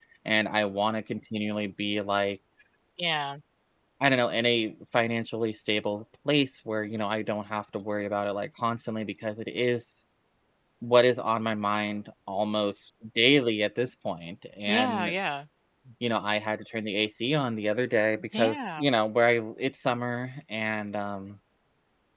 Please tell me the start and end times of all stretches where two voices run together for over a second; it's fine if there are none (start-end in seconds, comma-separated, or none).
none